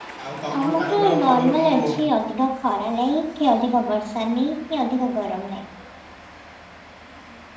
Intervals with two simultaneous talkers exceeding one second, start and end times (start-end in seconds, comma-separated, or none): 0.6-2.0